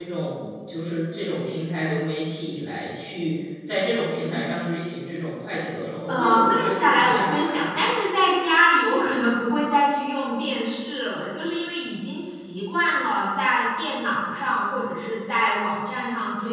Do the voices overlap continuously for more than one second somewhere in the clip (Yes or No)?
Yes